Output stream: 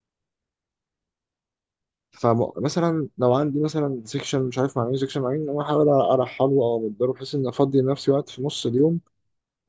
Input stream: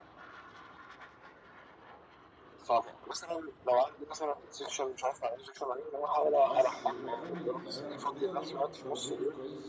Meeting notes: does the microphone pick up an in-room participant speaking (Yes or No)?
Yes